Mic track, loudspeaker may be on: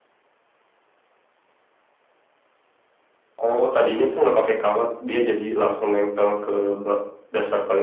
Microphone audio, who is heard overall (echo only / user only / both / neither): echo only